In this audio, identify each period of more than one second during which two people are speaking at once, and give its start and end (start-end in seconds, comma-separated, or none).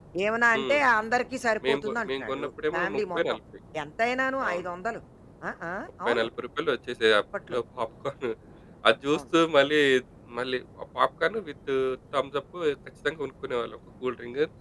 1.7-3.2